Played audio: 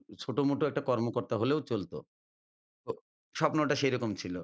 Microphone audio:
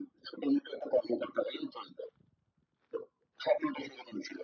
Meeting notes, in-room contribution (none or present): none